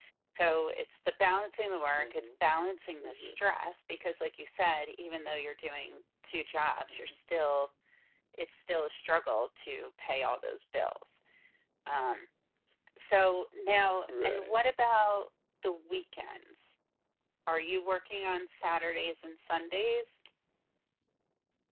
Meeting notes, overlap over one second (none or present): none